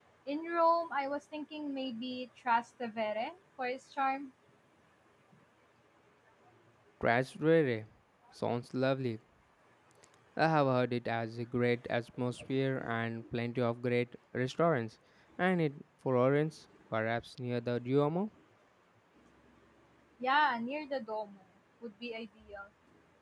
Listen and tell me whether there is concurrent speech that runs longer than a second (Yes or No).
No